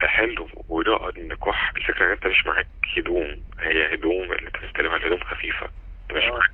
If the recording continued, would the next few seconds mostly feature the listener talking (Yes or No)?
No